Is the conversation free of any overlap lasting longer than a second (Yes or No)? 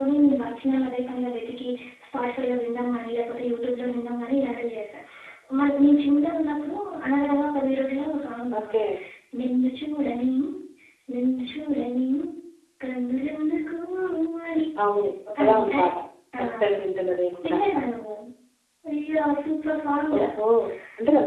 Yes